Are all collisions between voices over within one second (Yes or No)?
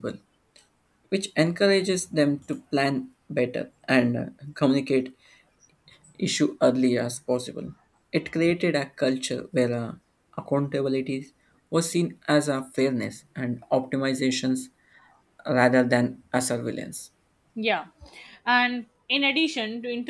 Yes